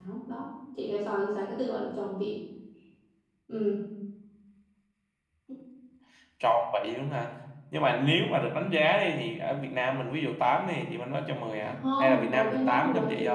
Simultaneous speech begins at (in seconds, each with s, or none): 11.7 s